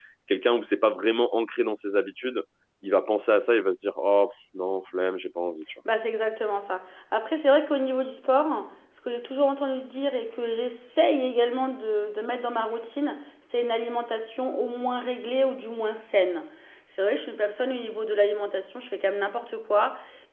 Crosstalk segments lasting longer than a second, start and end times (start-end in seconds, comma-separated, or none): none